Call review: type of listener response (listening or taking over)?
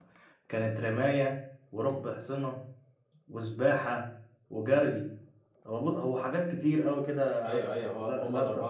taking over